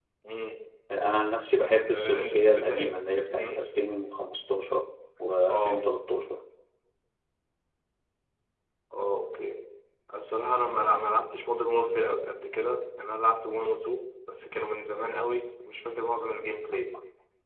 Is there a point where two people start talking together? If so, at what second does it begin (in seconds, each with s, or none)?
1.5 s